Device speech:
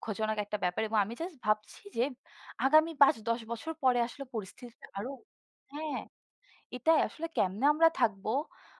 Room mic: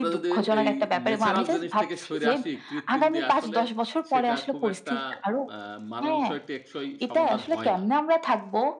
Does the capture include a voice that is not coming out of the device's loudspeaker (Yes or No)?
Yes